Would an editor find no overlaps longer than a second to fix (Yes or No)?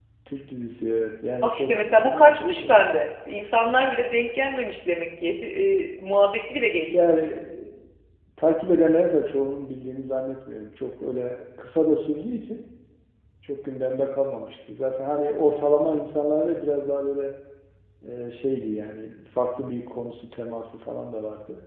No